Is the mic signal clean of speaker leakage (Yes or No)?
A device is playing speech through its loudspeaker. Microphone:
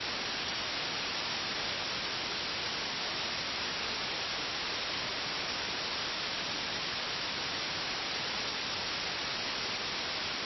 Yes